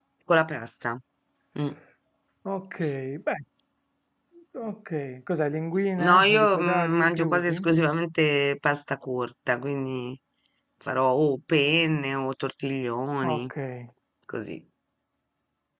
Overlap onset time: 6.0 s

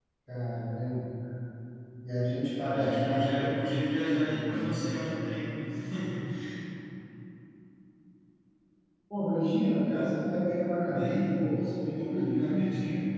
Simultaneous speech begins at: 2.6 s

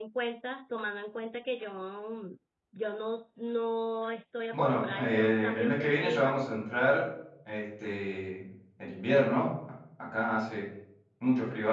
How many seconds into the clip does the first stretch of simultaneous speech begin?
4.5 s

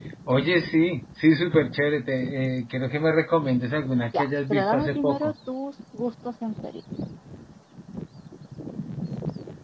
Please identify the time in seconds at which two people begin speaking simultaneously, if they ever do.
4.1 s

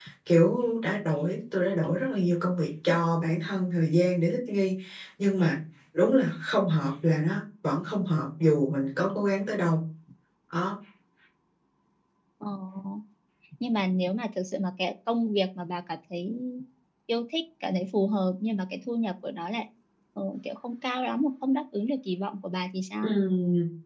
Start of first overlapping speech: none

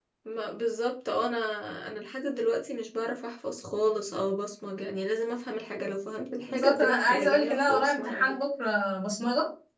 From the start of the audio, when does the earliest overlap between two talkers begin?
6.4 s

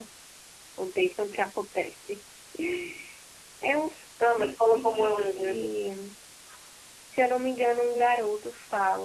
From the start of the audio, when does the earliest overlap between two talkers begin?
4.4 s

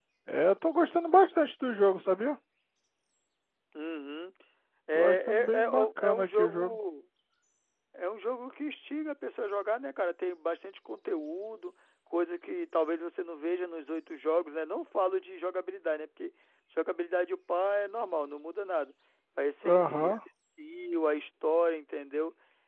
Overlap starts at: 4.9 s

